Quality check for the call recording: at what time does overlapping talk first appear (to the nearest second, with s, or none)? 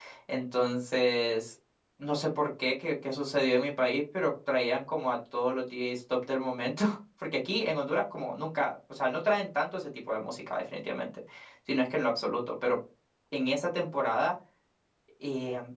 none